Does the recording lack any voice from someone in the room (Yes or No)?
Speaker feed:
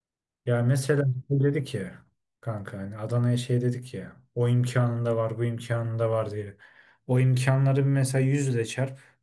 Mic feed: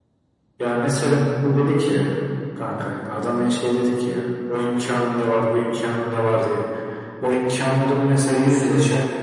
Yes